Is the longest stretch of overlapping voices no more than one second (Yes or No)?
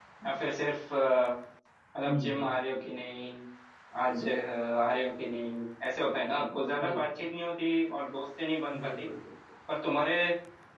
Yes